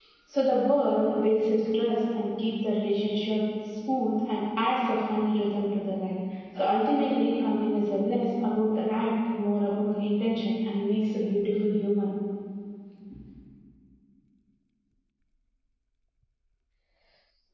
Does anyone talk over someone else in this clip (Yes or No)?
No